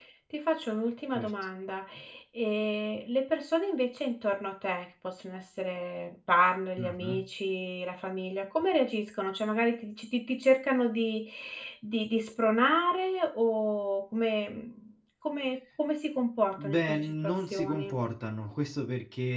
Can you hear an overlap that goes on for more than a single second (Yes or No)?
Yes